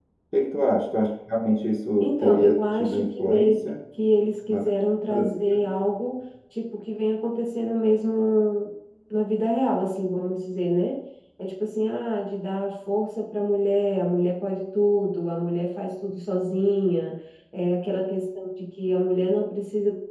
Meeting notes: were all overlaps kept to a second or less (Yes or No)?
No